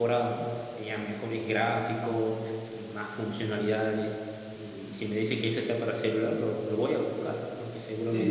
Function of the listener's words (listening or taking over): taking over